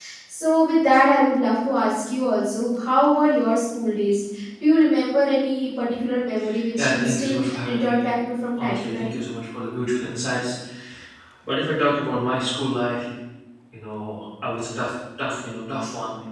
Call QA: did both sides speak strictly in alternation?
No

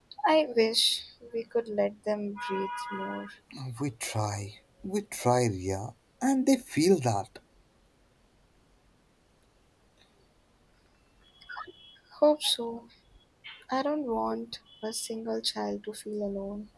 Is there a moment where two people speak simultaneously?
No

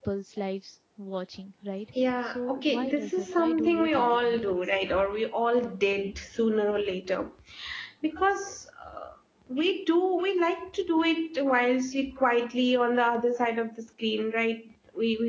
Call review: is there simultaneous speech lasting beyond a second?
Yes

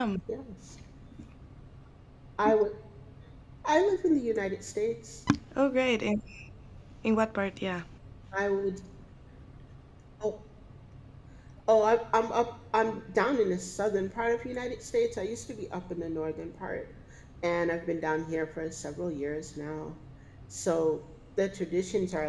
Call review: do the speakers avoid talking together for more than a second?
Yes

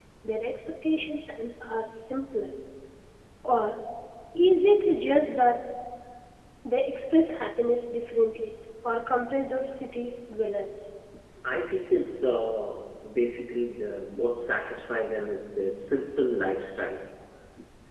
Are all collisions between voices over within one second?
Yes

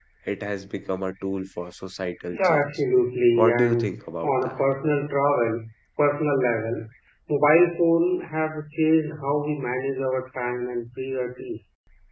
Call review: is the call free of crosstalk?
No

